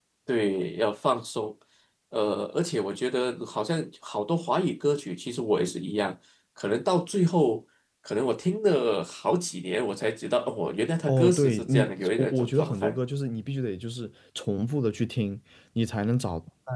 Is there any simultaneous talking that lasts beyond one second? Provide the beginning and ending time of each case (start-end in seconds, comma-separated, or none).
11.1-13.0